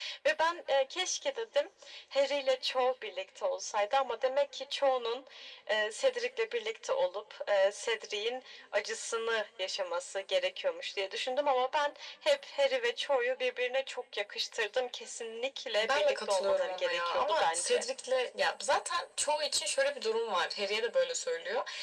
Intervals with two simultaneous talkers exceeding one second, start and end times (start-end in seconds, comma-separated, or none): 15.8-17.8